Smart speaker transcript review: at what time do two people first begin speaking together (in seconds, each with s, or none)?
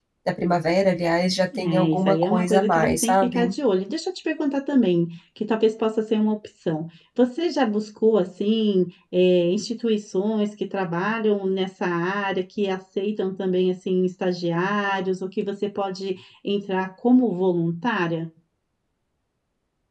1.5 s